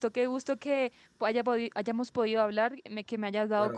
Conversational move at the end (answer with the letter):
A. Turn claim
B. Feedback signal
A